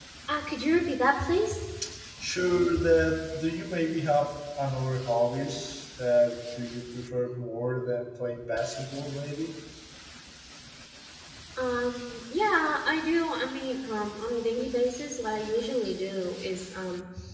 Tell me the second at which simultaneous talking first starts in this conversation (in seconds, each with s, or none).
none